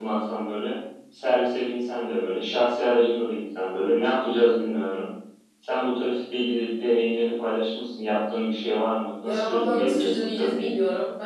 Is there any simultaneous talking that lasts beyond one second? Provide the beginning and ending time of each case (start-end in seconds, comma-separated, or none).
9.2-10.7